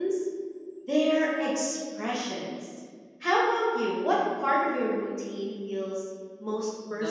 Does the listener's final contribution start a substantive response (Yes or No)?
Yes